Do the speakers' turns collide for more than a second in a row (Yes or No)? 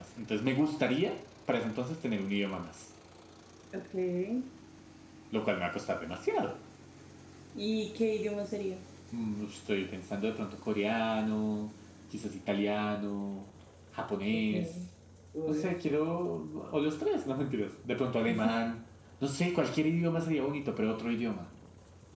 No